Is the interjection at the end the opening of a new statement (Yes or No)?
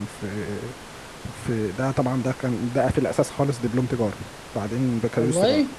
No